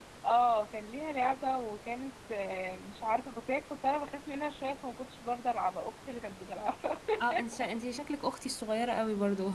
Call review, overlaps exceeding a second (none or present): none